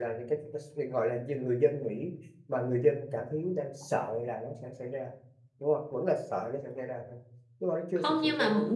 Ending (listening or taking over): taking over